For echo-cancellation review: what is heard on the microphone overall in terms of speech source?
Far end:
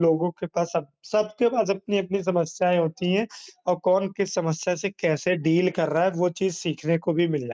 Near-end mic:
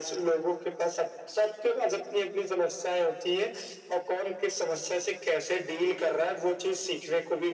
echo only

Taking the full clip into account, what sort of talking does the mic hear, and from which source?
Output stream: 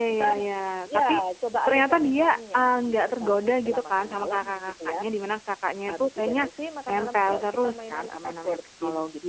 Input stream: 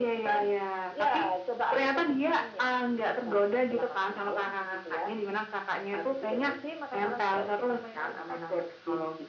echo only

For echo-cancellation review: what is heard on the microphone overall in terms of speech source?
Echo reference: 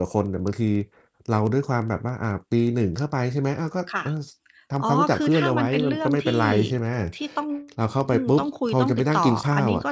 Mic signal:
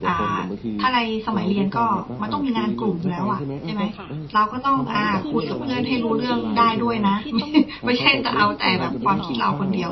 both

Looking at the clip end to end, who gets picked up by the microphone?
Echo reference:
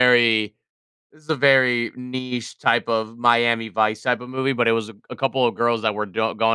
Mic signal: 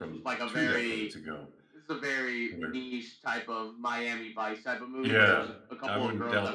both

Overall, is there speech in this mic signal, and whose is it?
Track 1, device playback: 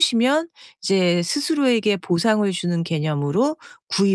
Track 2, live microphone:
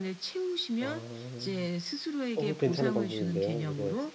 both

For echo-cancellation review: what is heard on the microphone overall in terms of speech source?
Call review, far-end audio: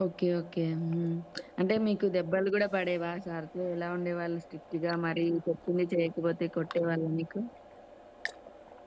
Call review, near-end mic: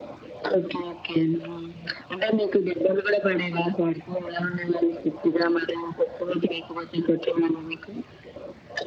echo only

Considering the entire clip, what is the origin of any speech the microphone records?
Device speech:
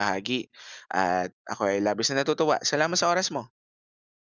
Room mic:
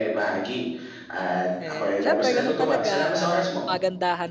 both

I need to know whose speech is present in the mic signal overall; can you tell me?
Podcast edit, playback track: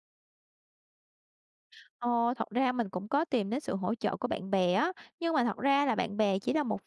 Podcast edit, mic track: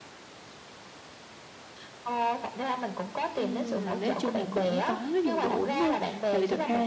both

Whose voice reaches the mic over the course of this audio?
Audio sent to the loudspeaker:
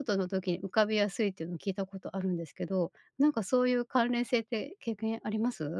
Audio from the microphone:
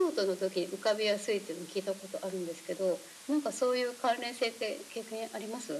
echo only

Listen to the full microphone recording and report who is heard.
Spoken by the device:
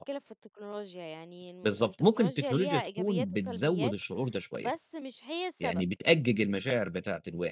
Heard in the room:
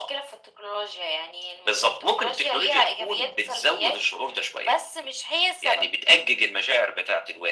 echo only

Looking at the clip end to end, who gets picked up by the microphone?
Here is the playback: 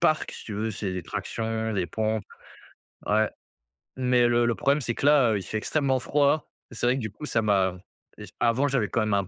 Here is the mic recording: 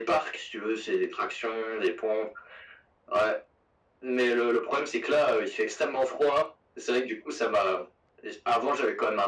echo only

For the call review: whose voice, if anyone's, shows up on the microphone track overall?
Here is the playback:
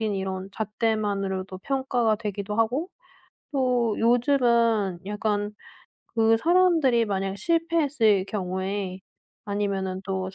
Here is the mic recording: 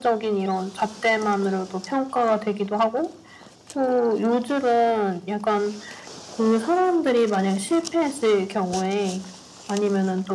echo only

